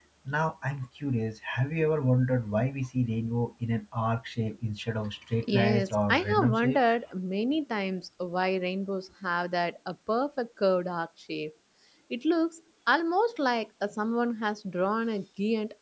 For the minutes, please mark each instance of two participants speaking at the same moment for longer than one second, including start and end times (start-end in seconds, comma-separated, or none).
5.4-6.8